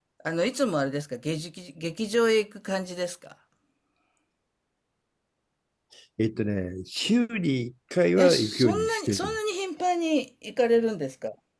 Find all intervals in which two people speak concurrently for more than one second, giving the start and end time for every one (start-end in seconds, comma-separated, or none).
8.2-9.4